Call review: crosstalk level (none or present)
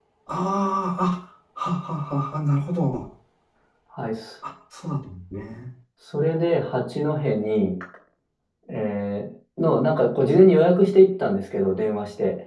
none